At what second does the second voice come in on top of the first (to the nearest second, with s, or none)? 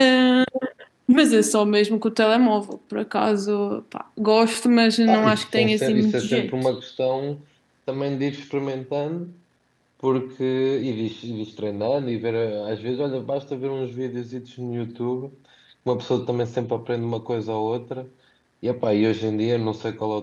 5 s